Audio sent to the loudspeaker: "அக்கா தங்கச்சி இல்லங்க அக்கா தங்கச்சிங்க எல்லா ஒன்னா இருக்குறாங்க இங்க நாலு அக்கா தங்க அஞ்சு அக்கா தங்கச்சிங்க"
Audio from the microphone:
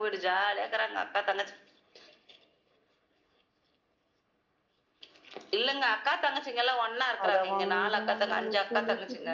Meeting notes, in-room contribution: present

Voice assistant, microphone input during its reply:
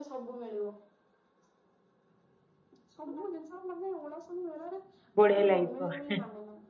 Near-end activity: present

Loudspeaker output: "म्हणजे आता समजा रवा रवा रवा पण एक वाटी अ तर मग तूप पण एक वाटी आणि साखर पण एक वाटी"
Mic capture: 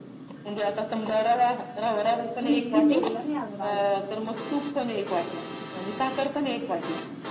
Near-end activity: present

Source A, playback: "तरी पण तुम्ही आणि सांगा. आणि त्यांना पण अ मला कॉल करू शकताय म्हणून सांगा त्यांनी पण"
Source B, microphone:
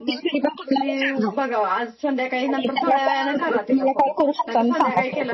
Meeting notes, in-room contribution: present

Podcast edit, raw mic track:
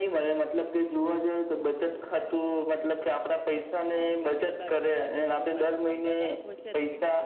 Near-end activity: present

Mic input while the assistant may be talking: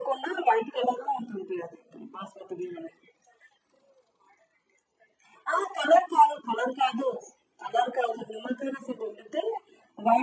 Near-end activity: none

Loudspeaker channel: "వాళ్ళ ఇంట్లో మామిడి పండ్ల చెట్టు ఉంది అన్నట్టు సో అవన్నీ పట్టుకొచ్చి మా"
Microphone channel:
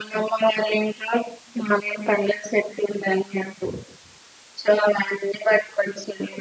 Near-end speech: none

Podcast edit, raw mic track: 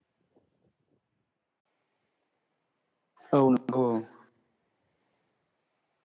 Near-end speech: present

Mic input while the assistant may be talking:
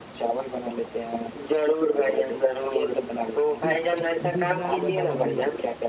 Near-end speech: present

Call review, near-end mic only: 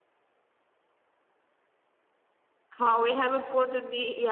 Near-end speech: present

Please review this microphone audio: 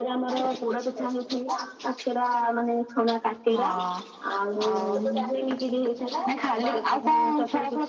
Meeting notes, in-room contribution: present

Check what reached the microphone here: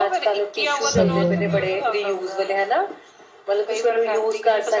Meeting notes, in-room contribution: present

